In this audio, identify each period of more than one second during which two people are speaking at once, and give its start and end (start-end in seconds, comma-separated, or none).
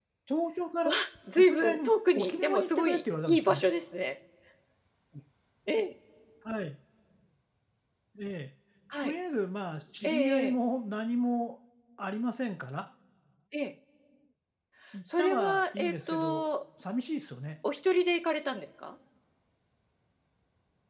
1.3-3.6, 15.2-16.5